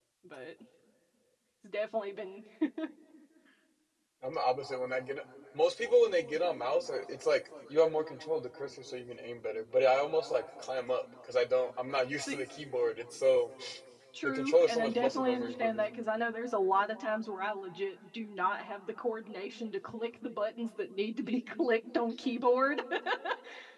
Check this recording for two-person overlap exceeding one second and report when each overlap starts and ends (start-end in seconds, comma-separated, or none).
14.2-15.9